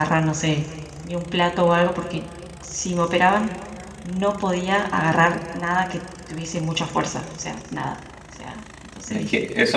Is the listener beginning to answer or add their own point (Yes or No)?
Yes